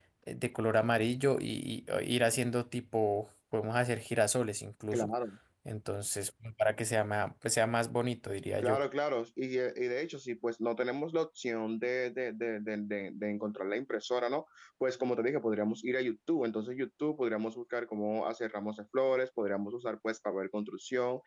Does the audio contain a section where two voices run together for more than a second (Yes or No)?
No